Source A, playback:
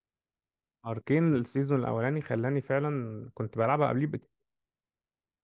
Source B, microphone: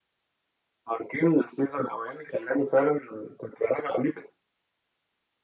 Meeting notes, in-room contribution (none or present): none